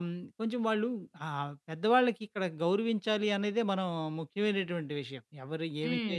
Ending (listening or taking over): listening